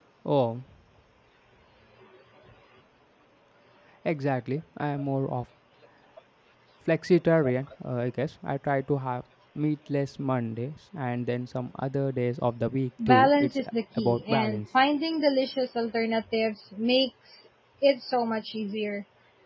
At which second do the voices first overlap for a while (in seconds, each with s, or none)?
13.0 s